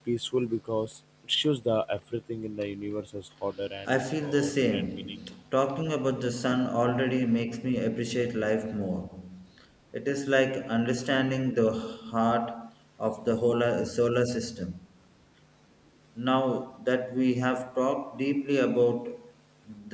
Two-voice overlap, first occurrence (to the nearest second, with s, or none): 4 s